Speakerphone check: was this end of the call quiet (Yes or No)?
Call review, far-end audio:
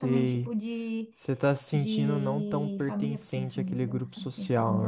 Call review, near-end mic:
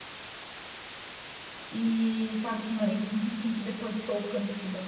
No